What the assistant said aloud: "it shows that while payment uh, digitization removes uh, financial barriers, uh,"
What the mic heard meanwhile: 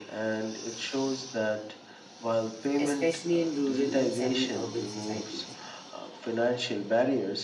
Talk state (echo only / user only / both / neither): both